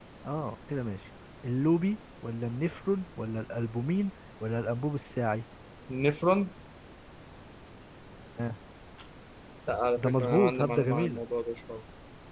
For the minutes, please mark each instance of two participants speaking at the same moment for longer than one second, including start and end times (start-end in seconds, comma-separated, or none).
10.0-11.2